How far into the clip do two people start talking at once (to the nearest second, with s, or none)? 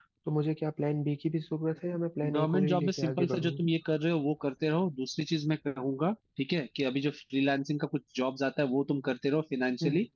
2 s